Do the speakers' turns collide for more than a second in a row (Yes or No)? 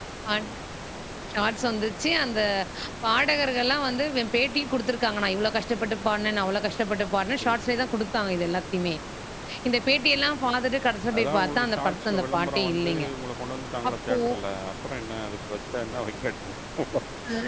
Yes